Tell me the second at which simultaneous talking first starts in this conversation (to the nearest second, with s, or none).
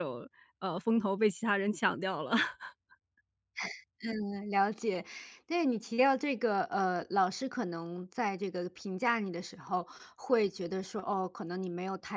none